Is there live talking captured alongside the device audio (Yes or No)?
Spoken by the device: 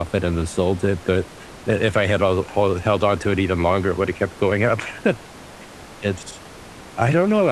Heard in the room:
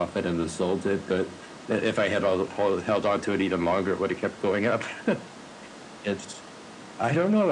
No